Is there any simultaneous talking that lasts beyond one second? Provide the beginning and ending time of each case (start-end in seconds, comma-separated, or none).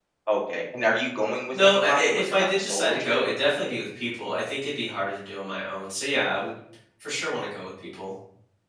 1.5-3.2